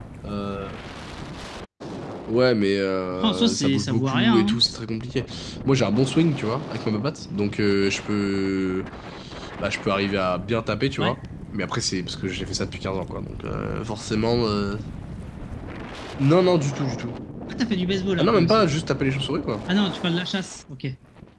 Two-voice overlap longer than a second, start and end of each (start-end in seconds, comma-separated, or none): 3.1-4.6